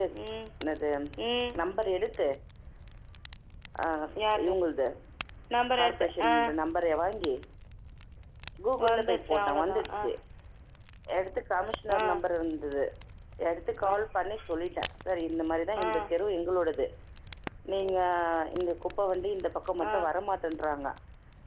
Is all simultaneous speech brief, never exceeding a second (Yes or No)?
No